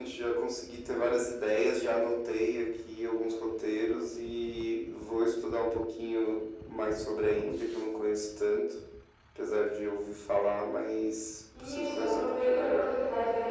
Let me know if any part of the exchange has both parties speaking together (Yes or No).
Yes